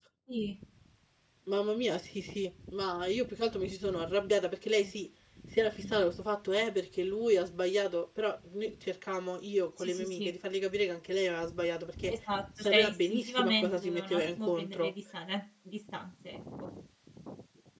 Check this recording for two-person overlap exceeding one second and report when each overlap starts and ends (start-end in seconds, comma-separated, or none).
12.6-14.9